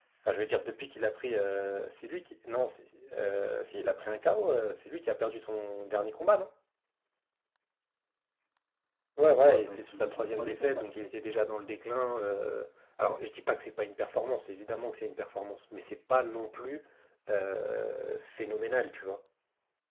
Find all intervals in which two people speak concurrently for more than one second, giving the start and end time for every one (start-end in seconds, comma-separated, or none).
9.4-11.1